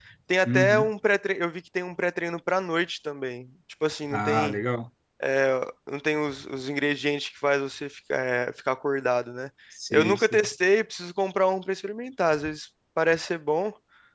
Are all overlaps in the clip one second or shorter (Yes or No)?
Yes